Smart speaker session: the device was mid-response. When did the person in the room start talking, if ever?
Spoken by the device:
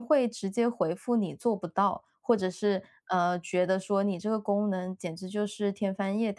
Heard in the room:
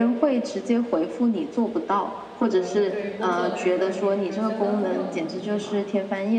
2 s

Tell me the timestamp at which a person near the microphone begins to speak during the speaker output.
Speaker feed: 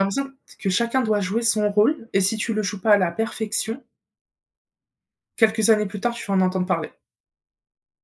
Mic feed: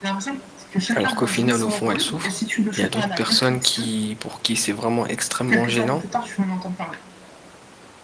1 s

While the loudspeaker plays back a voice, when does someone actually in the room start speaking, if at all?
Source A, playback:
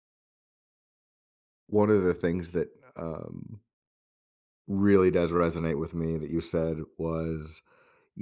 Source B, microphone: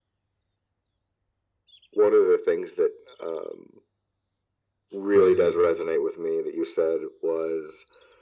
5 s

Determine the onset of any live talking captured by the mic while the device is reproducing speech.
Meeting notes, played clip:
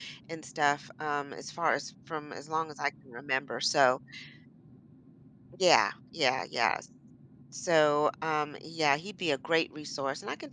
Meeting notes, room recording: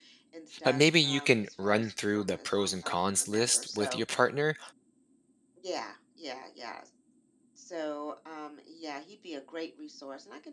1 s

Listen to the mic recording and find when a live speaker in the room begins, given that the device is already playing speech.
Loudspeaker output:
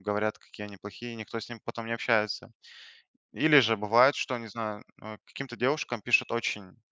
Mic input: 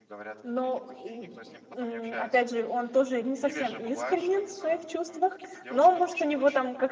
0 s

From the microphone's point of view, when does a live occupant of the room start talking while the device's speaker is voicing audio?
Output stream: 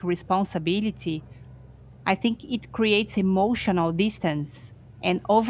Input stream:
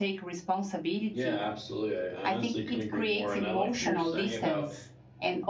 1 s

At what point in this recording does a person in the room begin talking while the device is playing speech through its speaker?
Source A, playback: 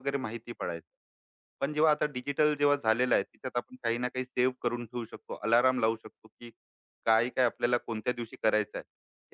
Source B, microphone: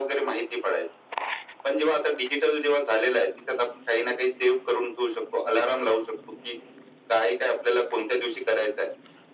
none

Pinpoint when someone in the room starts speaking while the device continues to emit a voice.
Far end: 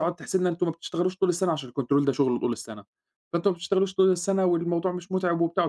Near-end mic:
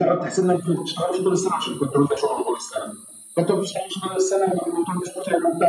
none

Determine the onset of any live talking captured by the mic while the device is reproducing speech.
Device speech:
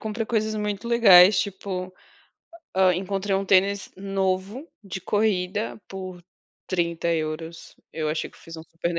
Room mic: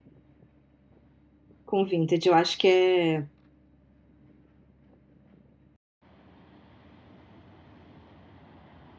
2 s

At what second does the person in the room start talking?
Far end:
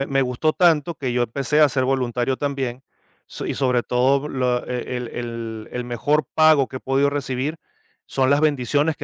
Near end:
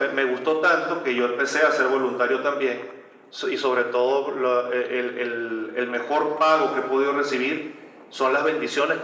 none

